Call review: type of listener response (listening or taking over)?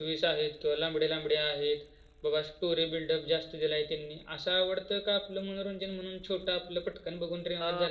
taking over